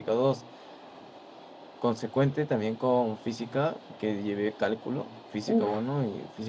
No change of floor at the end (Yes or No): Yes